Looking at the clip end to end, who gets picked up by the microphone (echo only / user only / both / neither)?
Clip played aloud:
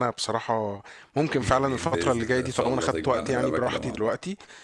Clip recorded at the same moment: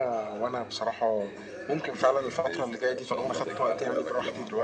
both